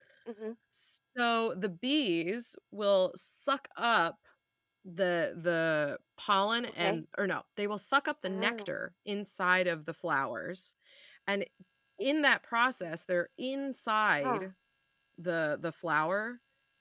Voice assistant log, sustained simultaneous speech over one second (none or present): none